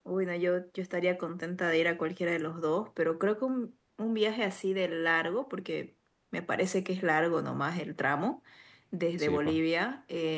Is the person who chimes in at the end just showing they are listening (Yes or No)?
Yes